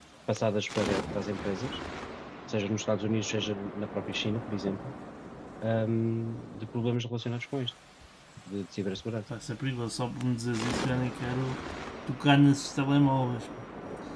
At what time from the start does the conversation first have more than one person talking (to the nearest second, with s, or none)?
none